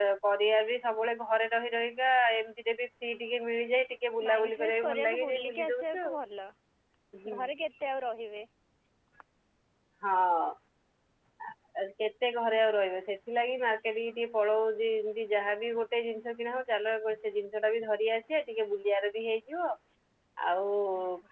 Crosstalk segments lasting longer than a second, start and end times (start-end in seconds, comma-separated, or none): 4.3-6.1